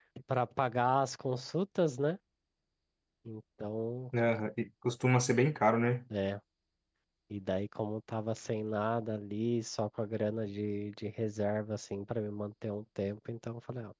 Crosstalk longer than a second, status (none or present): none